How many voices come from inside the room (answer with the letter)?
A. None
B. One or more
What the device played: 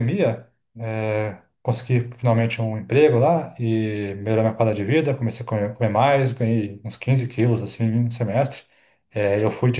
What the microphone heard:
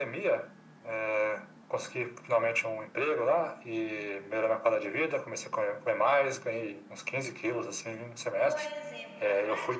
B